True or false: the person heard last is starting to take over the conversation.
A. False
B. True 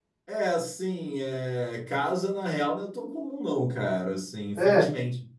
A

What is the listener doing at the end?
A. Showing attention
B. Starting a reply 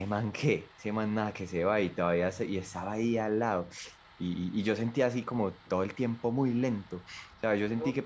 A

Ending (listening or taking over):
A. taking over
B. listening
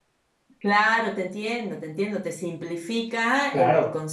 B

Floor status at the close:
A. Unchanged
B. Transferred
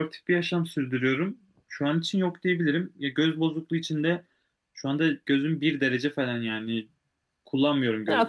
A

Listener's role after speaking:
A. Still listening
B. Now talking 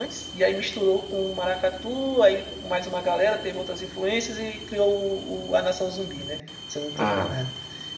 A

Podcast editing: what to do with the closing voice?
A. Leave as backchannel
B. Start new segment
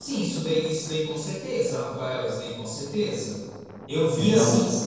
A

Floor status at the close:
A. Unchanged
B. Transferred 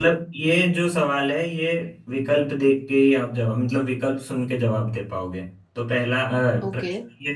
A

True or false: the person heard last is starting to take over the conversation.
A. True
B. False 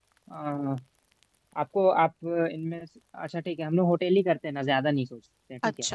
A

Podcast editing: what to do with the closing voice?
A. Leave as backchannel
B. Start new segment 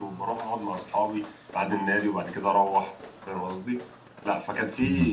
A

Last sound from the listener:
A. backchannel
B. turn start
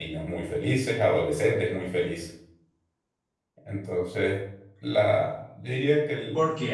B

